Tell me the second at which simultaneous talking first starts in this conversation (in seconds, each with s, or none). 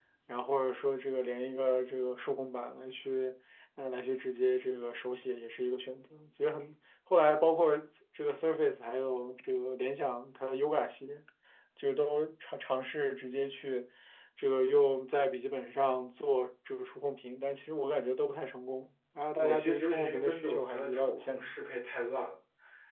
19.4 s